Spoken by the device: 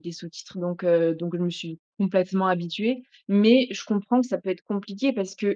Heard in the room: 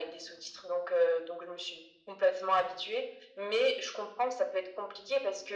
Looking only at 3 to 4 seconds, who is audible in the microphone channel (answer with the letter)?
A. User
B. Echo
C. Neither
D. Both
B